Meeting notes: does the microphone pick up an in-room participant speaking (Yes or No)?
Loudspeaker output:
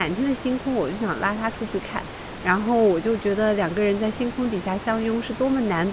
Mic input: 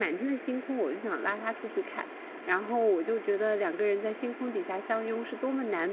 No